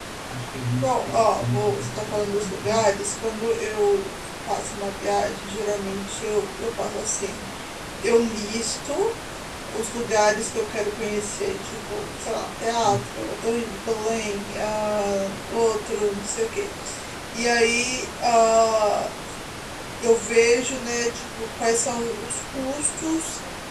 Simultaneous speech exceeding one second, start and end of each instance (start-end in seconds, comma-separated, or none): 0.8-2.9